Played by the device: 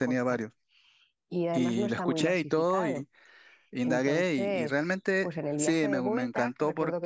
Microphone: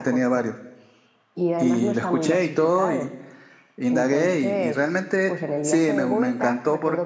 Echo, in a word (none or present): present